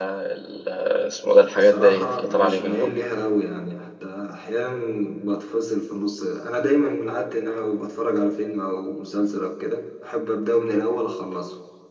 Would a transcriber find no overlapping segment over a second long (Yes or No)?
No